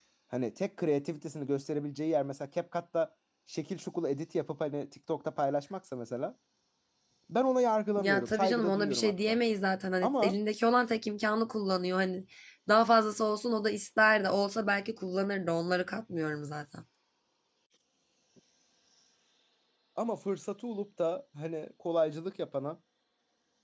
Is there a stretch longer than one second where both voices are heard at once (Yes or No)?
Yes